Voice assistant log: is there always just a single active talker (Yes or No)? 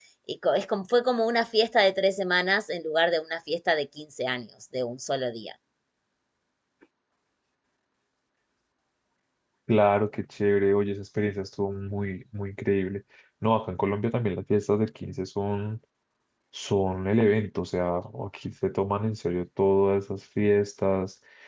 Yes